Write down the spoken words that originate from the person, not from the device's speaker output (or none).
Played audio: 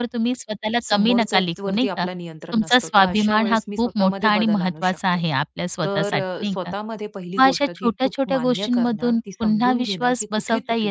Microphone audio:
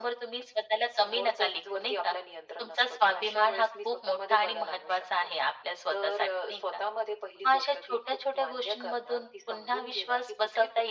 none